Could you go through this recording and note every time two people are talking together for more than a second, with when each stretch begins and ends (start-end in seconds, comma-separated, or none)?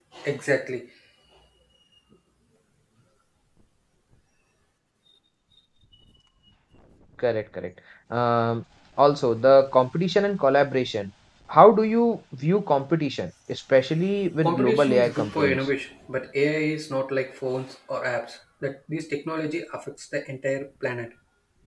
14.4-15.7